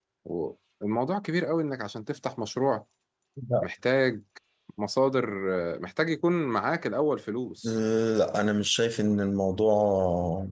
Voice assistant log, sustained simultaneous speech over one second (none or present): none